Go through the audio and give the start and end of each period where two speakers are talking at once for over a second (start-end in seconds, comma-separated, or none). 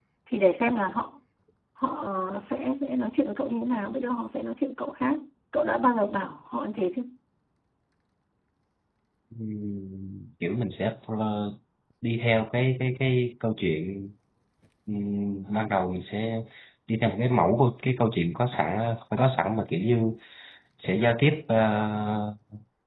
none